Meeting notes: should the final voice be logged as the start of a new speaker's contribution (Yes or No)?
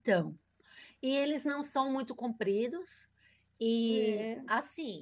No